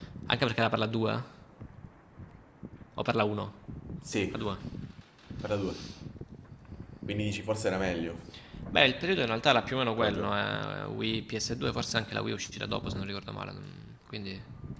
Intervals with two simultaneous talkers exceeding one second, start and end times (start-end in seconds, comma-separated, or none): none